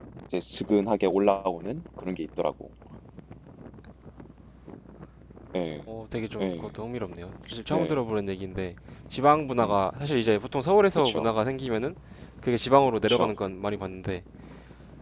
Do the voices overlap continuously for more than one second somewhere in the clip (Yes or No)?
No